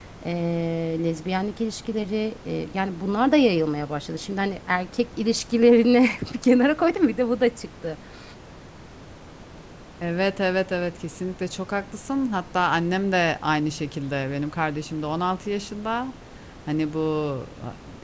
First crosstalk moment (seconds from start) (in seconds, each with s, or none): none